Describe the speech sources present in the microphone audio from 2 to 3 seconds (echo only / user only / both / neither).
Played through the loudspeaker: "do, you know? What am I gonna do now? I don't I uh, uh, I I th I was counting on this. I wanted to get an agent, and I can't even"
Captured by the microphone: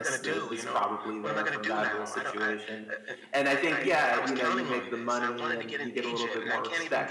both